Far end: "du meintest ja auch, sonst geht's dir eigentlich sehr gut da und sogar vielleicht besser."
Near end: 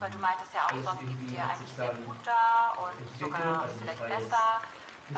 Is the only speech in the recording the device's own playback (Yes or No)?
No